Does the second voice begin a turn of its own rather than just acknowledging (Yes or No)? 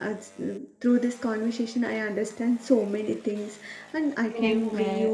No